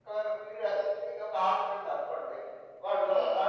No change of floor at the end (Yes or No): Yes